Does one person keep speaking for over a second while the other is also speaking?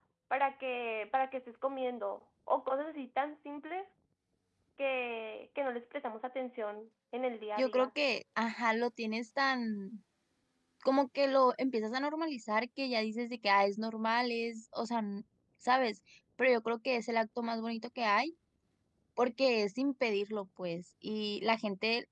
No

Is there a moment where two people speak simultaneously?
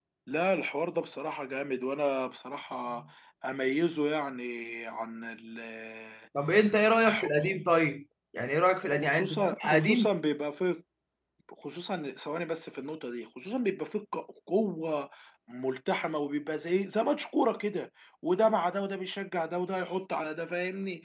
Yes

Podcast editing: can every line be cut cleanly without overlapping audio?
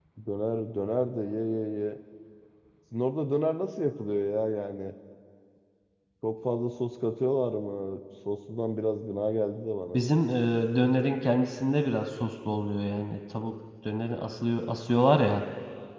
Yes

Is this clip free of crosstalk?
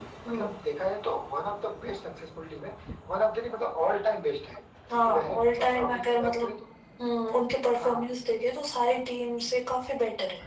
No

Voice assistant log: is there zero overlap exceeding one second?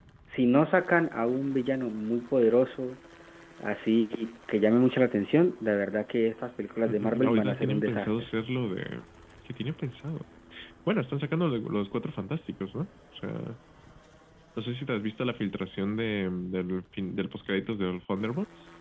No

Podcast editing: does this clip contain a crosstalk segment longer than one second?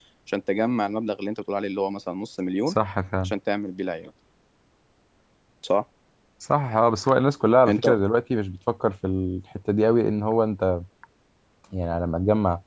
No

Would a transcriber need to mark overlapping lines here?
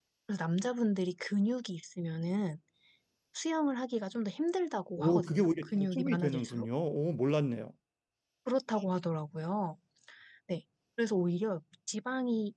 Yes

